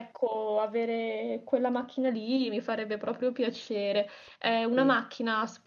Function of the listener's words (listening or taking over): listening